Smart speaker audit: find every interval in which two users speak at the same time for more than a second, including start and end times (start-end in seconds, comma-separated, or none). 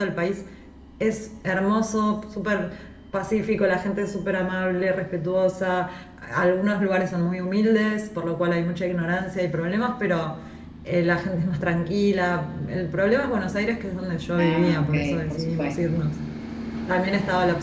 14.4-15.8